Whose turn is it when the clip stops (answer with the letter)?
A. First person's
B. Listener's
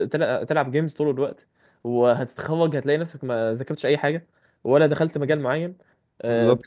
A